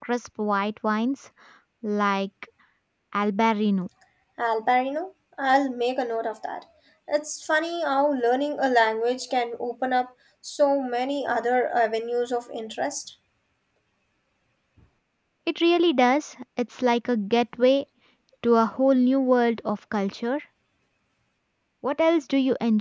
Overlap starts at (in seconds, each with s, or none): none